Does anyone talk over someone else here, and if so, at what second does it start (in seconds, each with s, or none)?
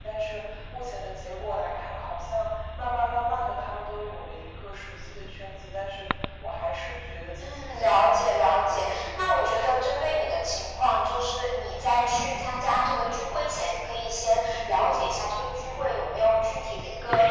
7.4 s